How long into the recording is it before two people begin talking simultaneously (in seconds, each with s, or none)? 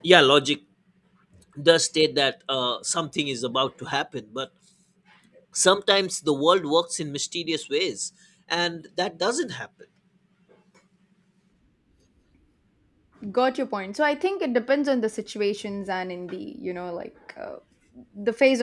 none